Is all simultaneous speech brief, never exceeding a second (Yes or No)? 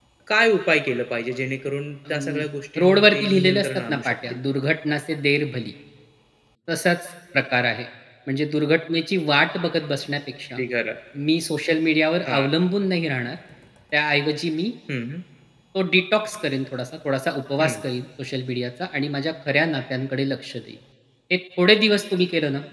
No